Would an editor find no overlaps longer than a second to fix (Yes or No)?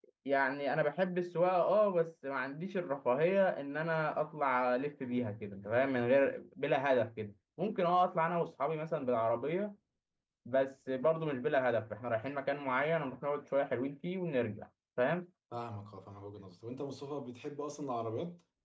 Yes